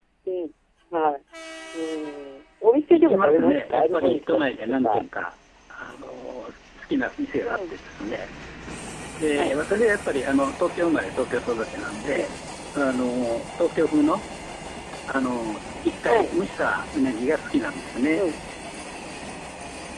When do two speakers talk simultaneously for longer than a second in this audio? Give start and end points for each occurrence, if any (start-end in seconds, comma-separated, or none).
2.9-5.0